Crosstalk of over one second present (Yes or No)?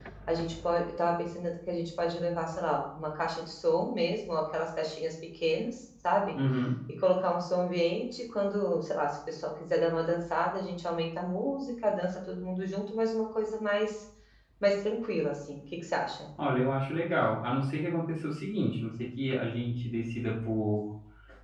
No